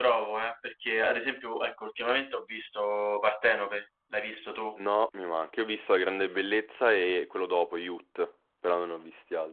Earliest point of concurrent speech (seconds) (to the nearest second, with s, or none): none